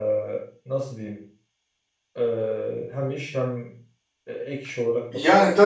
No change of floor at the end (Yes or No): No